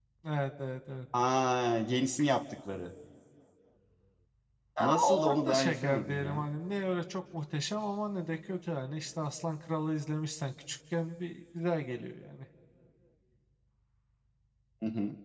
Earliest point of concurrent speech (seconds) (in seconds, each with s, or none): 4.8 s